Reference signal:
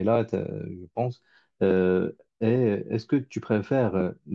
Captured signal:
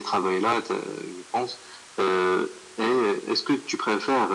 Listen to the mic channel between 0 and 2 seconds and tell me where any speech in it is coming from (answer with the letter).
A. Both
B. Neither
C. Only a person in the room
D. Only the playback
D